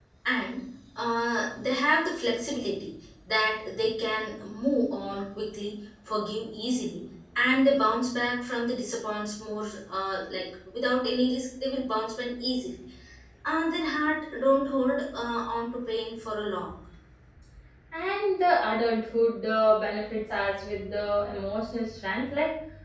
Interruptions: none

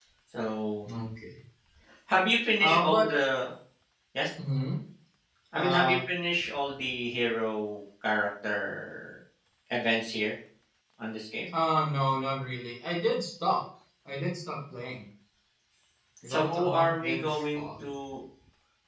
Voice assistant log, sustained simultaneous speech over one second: present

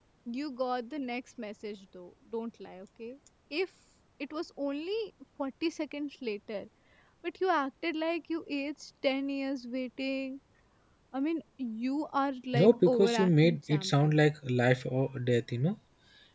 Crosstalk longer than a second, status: present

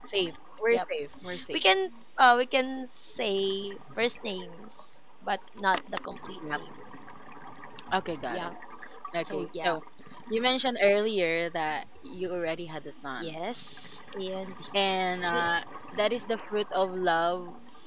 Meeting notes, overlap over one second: none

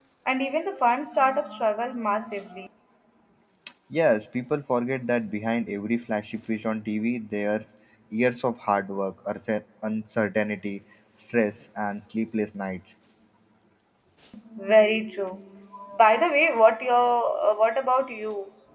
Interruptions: none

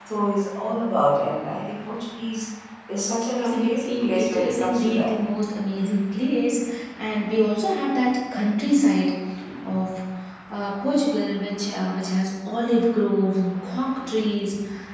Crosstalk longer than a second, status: present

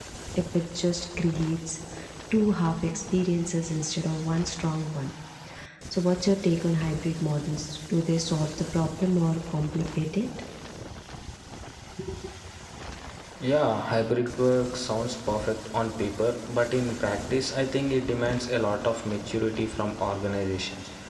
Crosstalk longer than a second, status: none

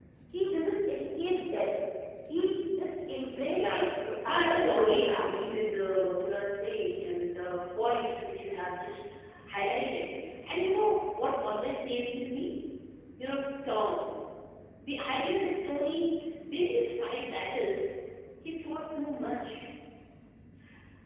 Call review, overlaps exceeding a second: present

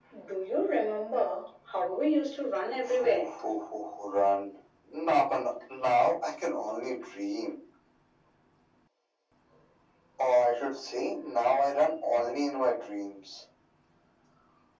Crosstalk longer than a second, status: none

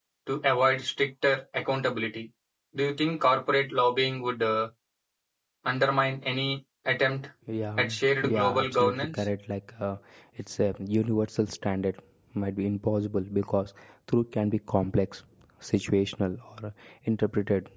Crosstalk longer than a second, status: present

